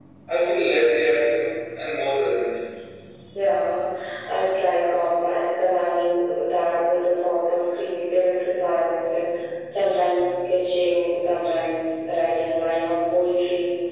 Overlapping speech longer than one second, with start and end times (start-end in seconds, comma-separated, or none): none